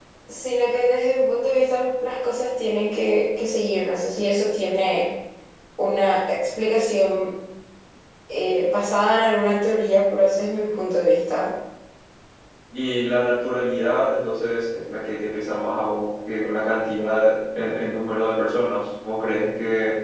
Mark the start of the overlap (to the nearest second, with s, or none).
none